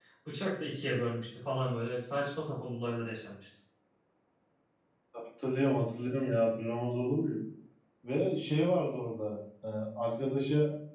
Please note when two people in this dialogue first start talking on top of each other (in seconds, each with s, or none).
none